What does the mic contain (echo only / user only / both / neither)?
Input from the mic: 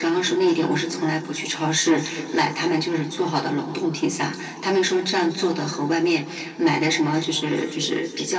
echo only